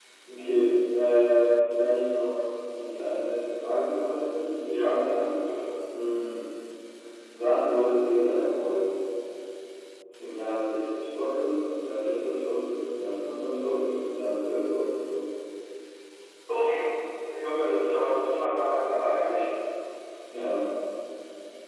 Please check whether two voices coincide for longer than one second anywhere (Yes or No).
No